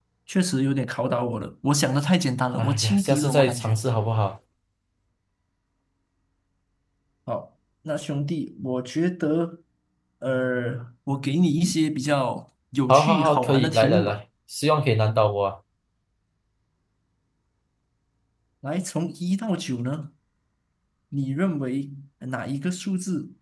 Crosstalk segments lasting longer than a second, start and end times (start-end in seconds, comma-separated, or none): 2.6-3.8, 12.9-14.2